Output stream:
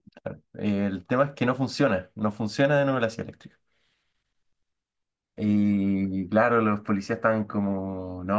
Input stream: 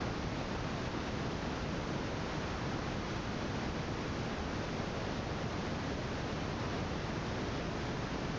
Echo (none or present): none